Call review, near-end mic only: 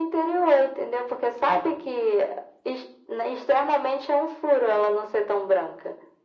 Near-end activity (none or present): none